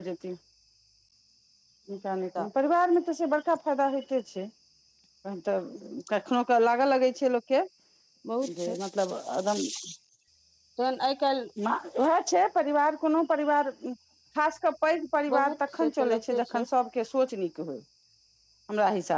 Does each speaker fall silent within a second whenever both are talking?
No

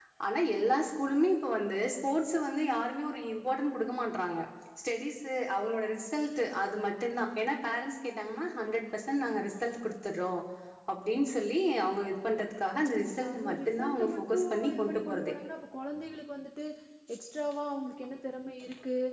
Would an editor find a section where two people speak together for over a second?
Yes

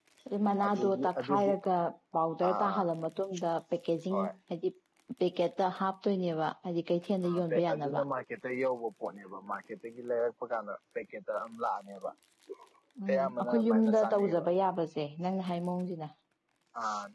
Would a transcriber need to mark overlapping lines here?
Yes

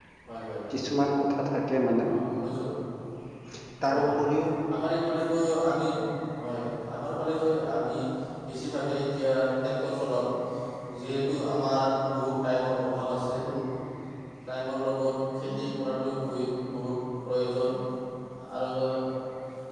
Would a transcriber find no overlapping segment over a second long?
Yes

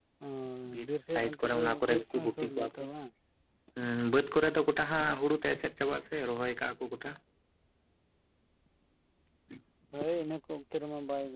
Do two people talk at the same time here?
Yes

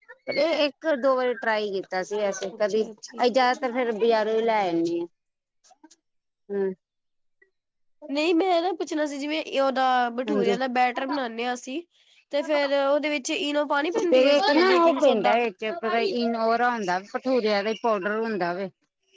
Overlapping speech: Yes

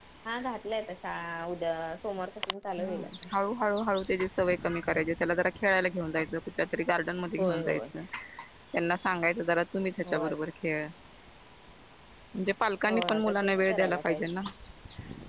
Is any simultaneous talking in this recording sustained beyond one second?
Yes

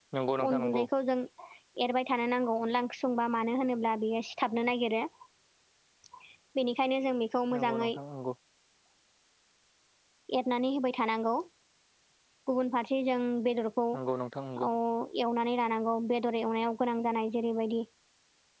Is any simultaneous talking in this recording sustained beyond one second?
No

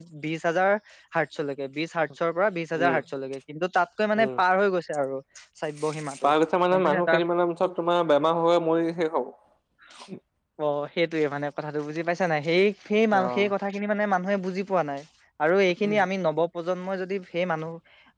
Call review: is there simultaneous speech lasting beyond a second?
No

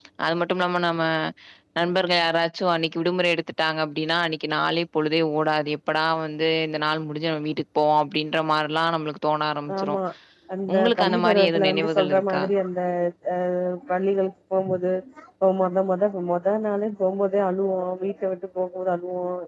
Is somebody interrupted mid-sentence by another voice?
Yes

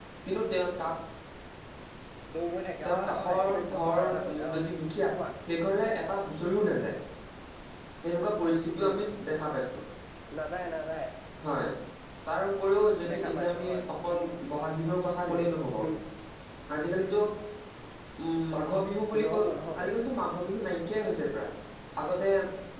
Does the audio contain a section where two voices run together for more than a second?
Yes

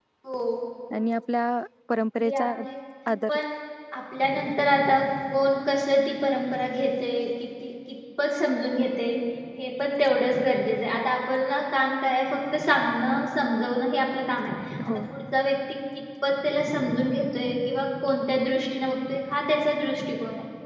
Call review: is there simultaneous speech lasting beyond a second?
No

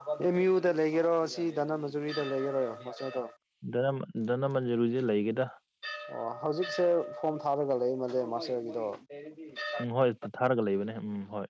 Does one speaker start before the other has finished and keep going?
No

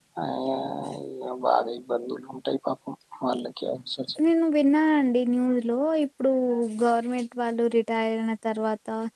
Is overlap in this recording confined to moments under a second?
Yes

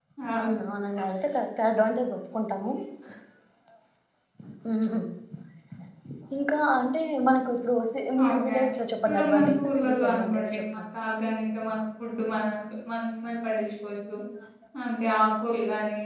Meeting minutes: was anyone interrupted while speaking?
Yes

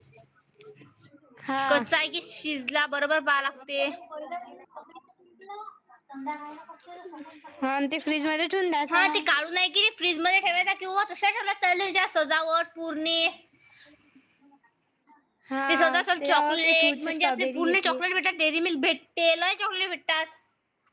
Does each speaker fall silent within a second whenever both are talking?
No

